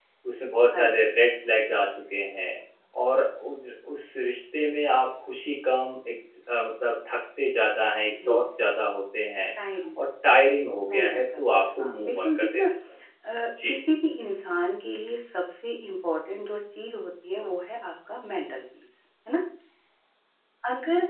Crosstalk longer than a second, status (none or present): present